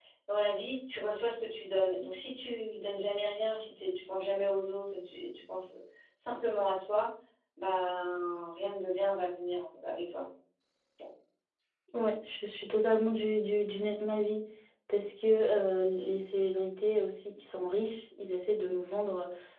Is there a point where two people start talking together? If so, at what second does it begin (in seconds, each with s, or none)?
none